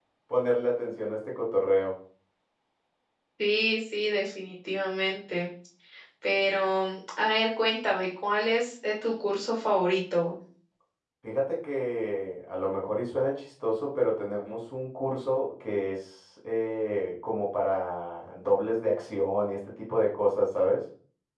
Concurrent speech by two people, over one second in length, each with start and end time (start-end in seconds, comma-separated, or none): none